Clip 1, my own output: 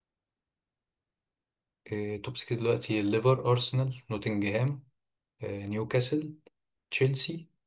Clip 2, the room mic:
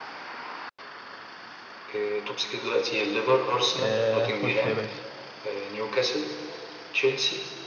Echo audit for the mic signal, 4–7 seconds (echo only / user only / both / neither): both